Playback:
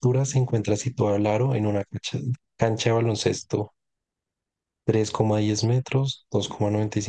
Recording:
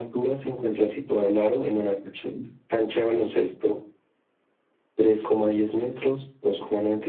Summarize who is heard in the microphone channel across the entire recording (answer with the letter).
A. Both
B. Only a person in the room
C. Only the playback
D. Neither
C